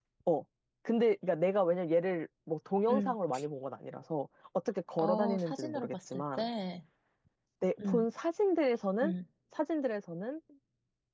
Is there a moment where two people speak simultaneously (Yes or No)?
Yes